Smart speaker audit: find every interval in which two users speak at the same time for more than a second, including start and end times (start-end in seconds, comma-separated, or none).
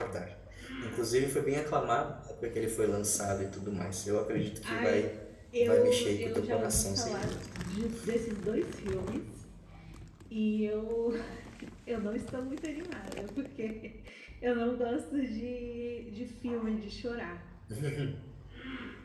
5.6-7.5